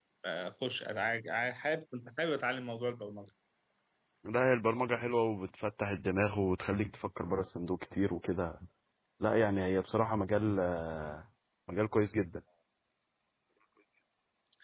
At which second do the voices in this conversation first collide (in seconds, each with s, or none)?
none